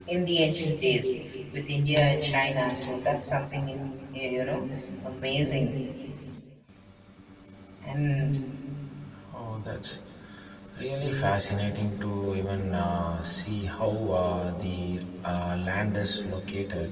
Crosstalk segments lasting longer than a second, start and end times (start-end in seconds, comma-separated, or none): none